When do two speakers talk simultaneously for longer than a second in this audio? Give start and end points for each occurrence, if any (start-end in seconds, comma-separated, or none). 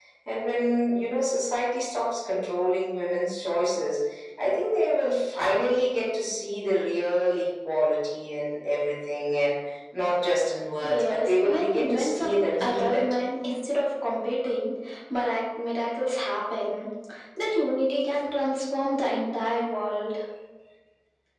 10.8-13.0